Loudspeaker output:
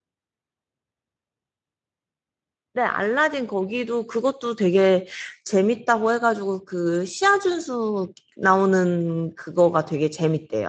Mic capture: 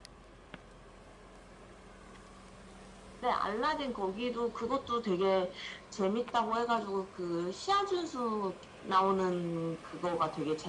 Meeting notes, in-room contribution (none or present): none